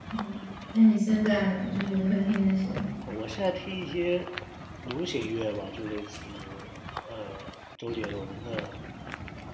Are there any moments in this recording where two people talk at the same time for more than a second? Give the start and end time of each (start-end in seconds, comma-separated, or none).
none